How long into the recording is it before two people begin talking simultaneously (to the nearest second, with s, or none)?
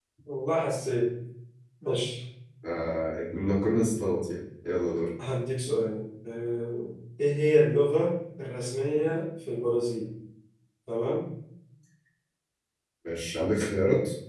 none